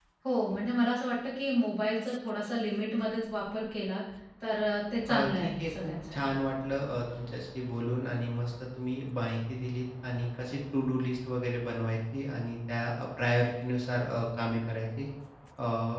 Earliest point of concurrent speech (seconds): 5 s

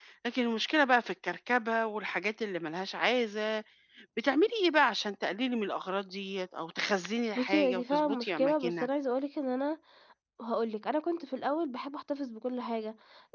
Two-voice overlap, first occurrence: 7 s

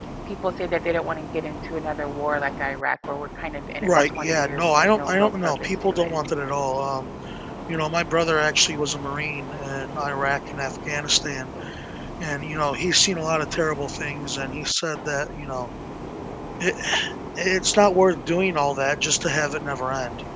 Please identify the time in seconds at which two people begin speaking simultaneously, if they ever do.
4 s

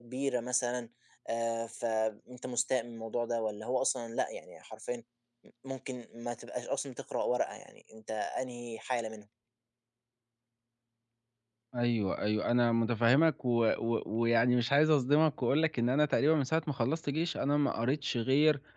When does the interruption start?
none

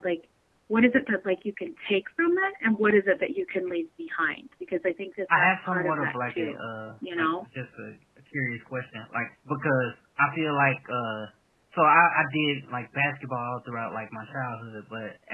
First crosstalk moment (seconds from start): 5 s

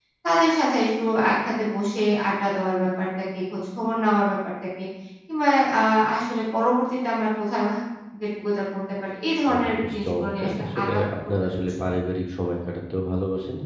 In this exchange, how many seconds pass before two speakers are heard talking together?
9 s

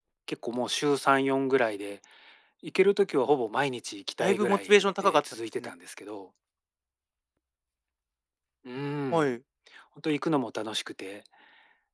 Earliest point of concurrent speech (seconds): 4 s

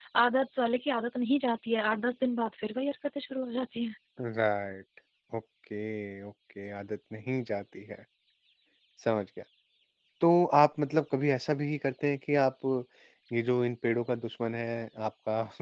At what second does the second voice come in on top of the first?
none

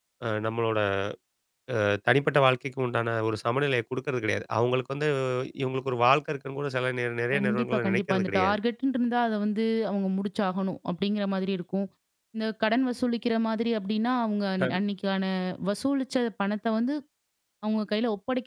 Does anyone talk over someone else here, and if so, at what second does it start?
7 s

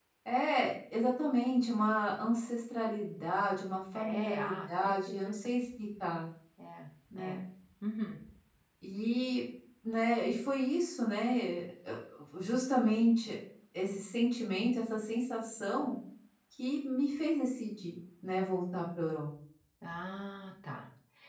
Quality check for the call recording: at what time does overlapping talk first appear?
4 s

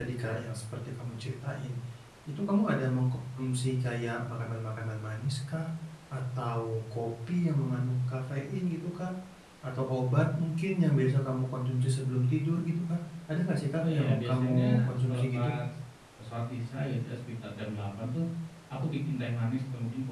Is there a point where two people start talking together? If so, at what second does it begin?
14 s

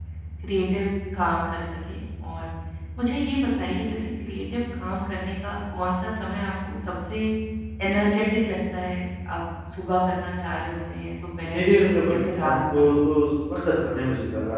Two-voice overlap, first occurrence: 11 s

